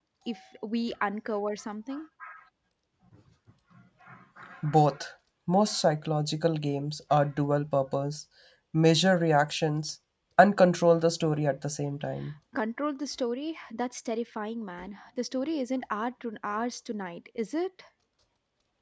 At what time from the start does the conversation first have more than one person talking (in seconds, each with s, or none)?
none